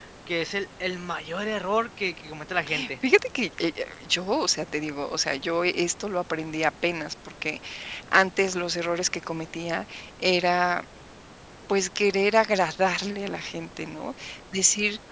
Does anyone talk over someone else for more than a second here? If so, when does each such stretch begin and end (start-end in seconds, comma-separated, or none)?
none